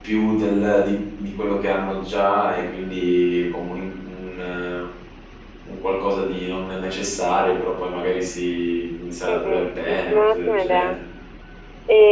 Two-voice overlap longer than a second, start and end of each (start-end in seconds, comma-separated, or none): 9.3-11.0